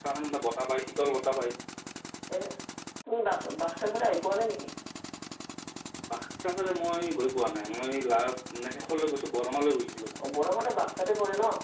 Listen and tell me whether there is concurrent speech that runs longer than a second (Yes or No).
No